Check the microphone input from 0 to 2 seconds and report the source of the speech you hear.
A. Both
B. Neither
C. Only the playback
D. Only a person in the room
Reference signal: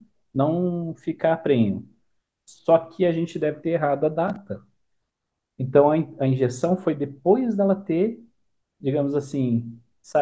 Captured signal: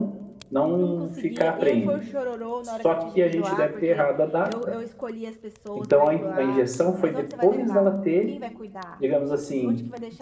A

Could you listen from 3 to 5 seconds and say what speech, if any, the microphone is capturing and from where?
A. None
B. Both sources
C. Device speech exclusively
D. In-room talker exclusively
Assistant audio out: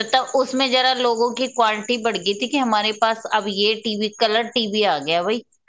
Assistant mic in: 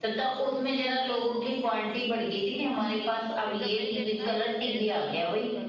B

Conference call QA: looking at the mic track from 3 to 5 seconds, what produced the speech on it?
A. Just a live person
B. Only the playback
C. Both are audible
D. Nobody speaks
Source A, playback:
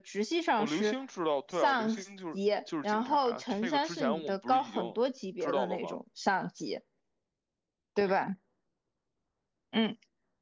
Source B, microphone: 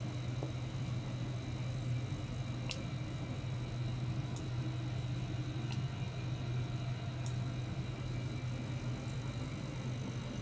D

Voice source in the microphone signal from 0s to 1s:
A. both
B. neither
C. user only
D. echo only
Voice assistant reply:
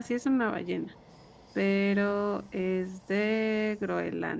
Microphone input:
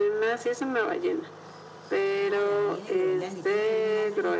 D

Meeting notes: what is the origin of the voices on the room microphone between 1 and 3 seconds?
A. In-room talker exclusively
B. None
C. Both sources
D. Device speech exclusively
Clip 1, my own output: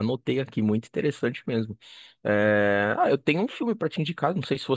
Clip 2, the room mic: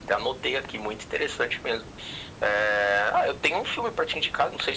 D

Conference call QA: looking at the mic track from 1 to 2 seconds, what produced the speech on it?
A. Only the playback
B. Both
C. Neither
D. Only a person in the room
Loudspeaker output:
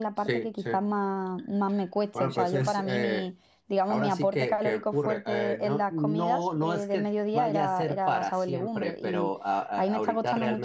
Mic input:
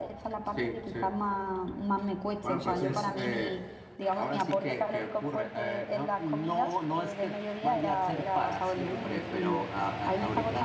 A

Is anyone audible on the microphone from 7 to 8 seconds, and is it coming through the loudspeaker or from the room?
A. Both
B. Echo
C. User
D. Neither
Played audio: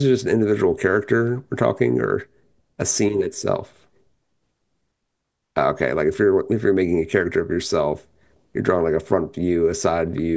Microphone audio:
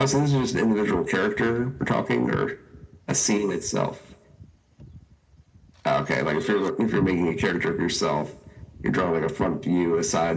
B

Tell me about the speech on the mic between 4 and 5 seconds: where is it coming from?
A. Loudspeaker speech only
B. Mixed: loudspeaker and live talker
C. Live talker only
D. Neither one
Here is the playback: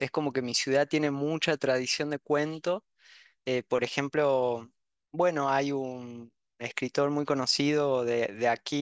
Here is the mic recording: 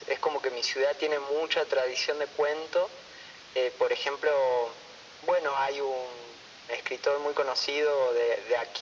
A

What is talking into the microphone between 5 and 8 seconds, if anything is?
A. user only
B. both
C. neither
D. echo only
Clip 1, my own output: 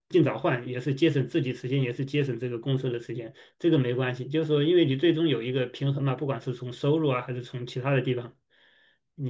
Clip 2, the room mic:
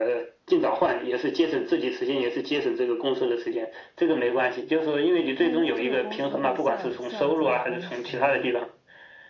B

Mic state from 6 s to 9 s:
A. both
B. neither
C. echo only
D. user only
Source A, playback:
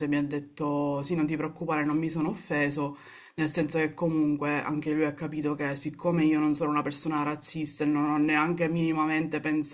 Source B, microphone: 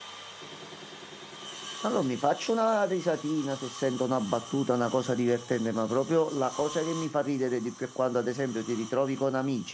D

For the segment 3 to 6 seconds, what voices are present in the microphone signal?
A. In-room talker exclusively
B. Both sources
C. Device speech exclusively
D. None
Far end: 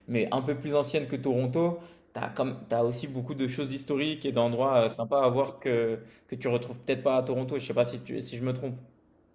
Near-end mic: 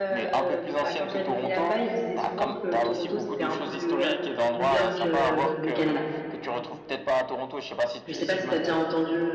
B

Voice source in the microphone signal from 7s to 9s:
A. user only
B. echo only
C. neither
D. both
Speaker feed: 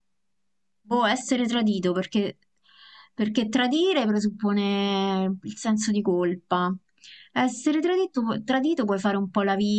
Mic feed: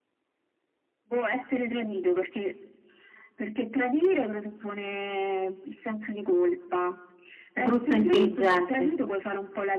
D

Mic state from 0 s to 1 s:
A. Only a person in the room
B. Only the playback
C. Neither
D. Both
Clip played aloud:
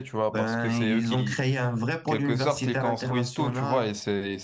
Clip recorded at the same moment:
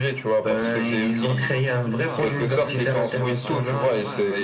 D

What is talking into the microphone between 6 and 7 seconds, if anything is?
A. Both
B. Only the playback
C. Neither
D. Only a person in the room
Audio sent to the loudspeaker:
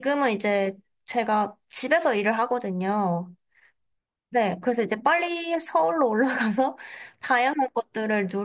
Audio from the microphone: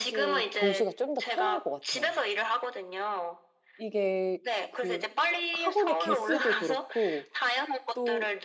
A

